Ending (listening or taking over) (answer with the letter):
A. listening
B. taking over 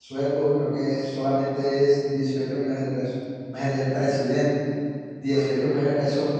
A